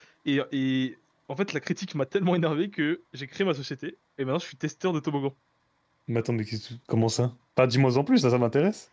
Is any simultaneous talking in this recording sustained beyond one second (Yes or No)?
No